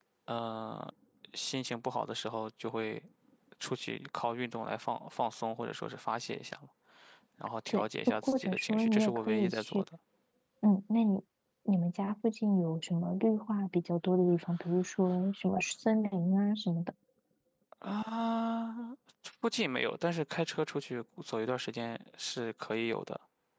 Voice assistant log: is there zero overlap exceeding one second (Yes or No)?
No